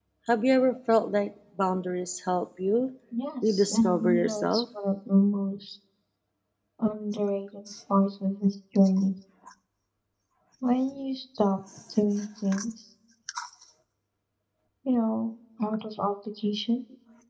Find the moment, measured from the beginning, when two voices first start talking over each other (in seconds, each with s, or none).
3.4 s